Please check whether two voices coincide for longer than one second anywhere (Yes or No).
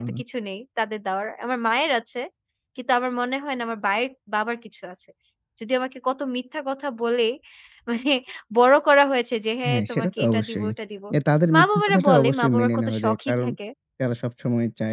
Yes